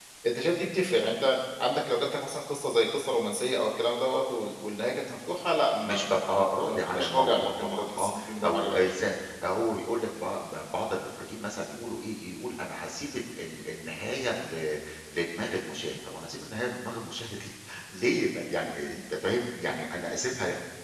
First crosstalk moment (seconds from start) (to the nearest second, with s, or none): 6 s